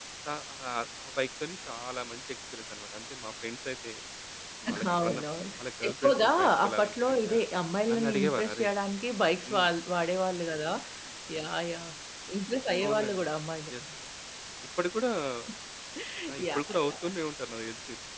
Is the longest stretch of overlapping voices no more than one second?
No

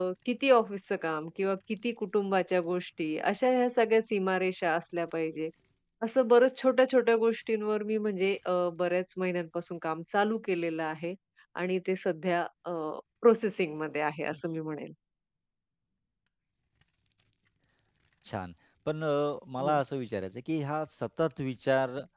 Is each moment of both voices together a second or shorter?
Yes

